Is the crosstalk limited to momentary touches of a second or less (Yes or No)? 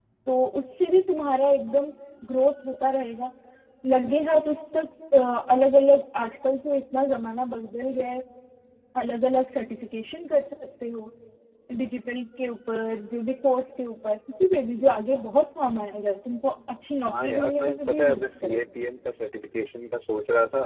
No